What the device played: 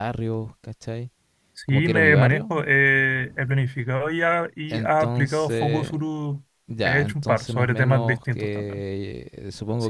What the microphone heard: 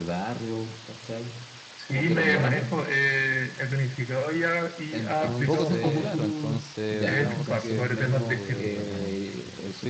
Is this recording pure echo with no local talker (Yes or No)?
No